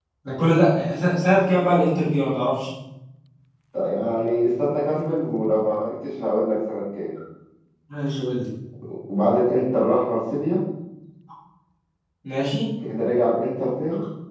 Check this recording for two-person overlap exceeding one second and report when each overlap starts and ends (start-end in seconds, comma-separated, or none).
none